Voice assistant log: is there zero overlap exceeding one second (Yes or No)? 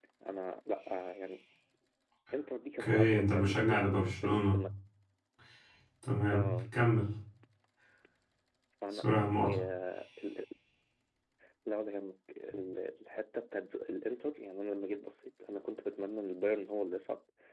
No